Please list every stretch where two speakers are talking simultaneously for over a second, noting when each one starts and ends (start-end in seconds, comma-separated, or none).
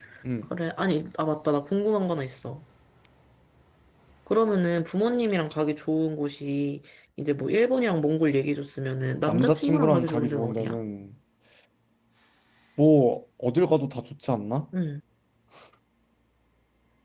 9.3-10.8